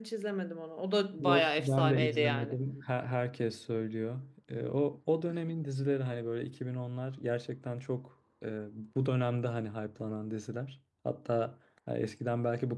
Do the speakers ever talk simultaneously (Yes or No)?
Yes